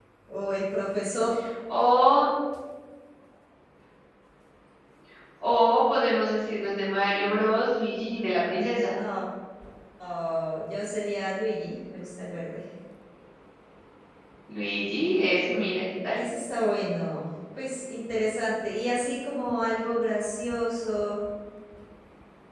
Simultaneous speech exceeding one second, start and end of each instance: none

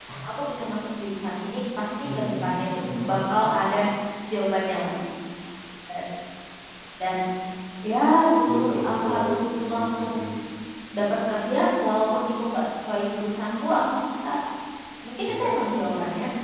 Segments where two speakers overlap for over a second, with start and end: 8.5-10.1

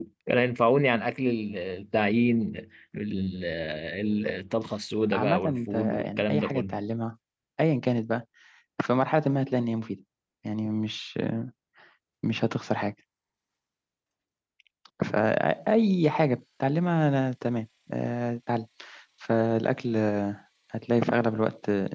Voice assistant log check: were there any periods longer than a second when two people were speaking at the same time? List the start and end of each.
5.1-6.8

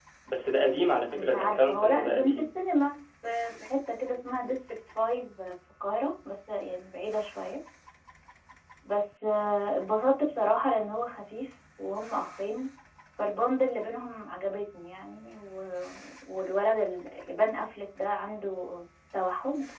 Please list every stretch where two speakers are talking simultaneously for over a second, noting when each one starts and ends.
1.1-2.5

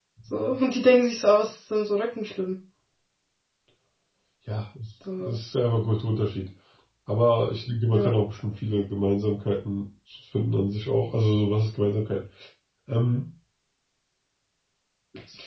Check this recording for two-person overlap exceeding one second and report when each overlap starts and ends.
none

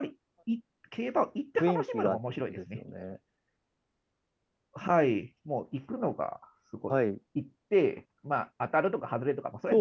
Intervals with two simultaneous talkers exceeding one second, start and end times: 1.6-2.8

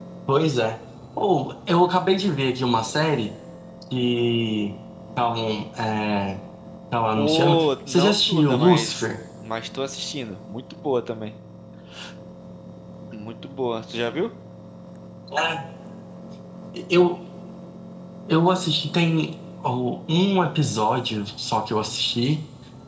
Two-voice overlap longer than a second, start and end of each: 7.2-9.1

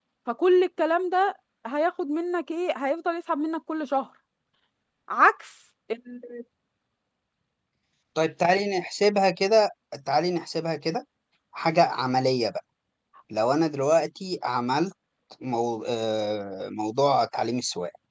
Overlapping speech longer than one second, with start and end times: none

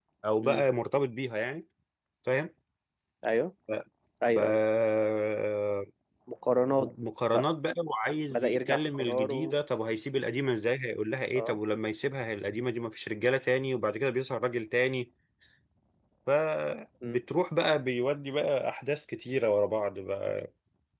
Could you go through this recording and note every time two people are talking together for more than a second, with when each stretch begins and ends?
8.3-9.6

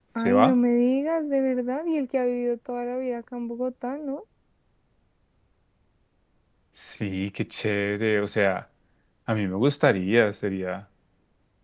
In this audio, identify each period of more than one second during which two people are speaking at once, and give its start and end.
none

